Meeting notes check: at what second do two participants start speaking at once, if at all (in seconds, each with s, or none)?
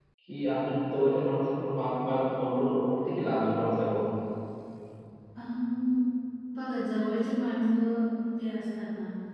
none